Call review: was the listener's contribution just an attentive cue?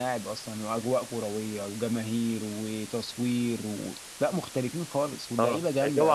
No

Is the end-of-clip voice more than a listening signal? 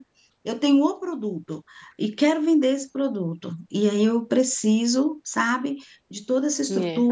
No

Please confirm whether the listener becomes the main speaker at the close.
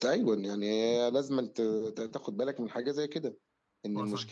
No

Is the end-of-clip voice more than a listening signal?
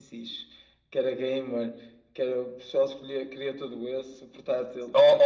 Yes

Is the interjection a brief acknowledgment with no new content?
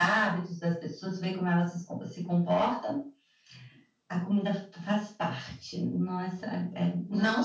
No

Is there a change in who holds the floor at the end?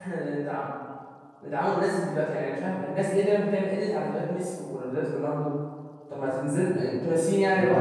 Yes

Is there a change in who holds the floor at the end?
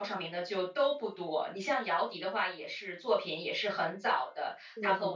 No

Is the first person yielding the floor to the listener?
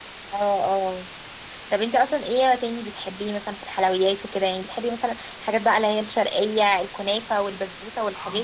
Yes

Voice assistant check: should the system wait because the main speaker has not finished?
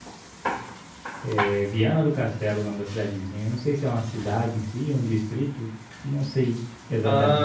No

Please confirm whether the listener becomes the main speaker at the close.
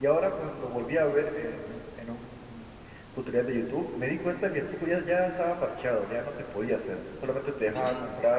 No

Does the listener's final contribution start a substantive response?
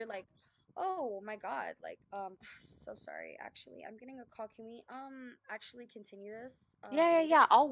Yes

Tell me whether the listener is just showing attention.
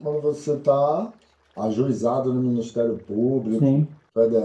Yes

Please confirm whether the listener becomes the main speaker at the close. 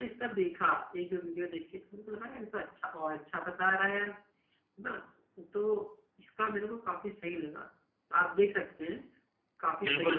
Yes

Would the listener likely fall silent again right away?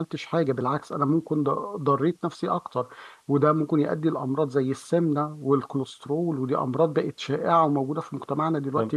No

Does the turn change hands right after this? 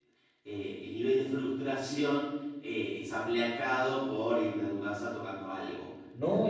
Yes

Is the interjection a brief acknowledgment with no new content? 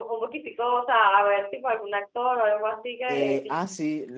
No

